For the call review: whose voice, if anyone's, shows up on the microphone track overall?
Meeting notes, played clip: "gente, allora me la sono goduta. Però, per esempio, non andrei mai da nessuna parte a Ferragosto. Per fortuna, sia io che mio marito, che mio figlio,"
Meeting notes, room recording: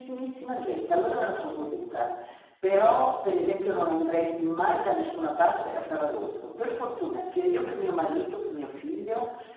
echo only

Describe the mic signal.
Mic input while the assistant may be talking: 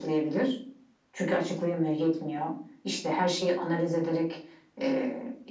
echo only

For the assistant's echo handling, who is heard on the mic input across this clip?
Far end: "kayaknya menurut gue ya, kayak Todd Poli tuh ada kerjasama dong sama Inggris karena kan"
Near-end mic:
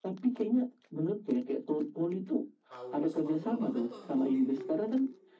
both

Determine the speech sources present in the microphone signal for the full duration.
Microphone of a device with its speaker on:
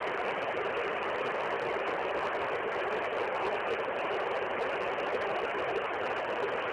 neither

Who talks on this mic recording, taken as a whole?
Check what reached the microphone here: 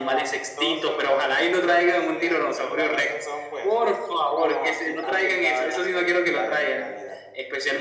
echo only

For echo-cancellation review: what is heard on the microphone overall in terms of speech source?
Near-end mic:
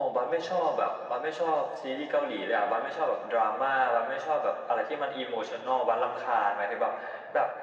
echo only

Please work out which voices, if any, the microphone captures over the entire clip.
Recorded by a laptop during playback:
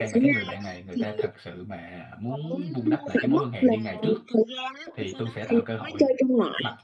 both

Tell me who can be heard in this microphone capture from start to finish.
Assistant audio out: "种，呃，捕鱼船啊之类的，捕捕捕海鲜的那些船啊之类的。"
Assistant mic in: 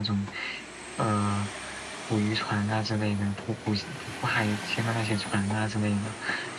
echo only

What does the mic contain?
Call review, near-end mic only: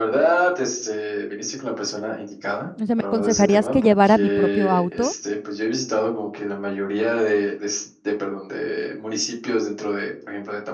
both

